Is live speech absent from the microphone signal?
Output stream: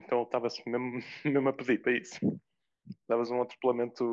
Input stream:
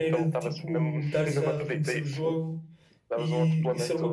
No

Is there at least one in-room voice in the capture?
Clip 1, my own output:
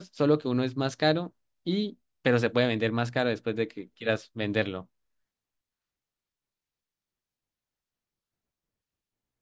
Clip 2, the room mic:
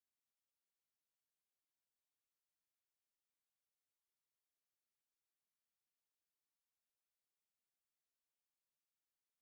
No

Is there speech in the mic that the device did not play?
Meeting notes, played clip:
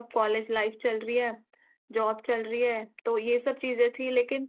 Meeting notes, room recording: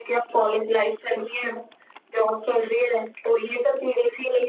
No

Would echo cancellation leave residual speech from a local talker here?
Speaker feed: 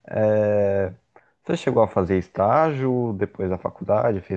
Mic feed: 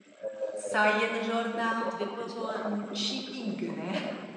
Yes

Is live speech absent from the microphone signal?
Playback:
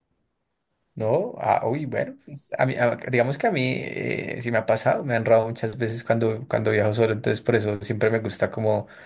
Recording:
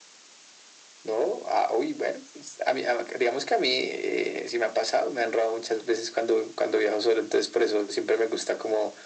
Yes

